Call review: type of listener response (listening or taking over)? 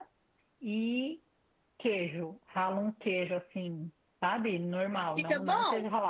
listening